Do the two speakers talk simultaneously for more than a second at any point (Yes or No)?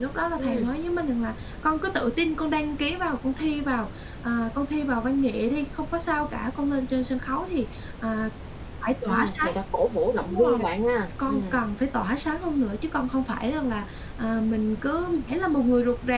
No